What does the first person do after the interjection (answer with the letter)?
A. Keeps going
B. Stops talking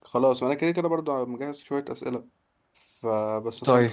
A